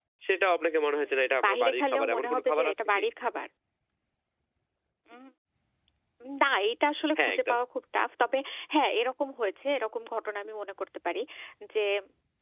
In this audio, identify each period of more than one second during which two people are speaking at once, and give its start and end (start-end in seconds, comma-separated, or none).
1.0-3.0